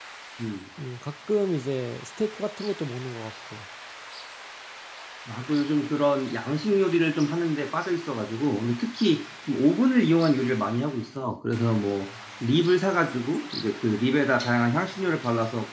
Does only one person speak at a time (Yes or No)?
Yes